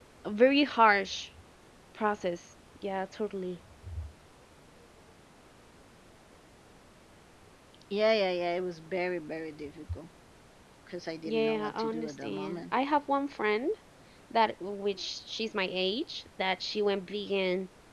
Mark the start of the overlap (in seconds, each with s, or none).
11.2 s